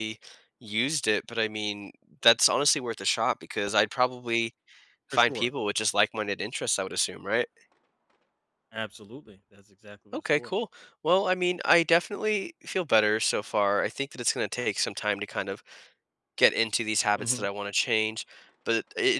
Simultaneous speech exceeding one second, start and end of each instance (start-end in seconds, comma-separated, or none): none